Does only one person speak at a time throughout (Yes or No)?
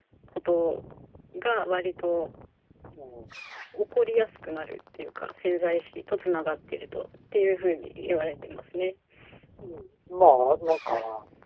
Yes